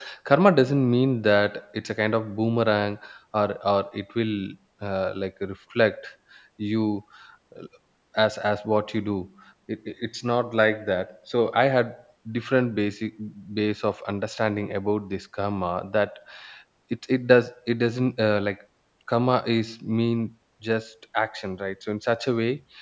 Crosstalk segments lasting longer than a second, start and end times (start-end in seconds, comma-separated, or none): none